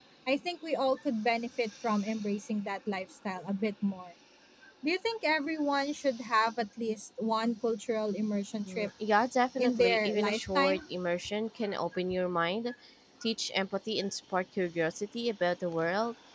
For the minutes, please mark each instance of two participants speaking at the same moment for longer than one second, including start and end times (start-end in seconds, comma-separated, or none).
9.6-10.8